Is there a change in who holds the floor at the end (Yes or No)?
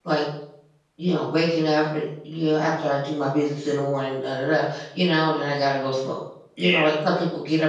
No